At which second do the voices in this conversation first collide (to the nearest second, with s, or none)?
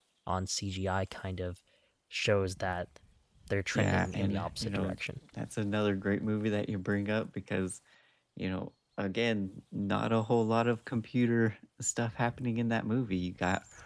4 s